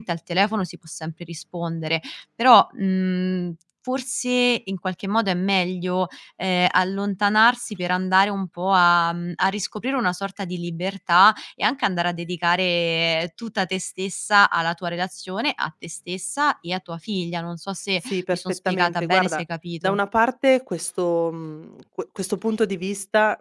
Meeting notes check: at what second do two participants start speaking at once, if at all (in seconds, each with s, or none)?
18.0 s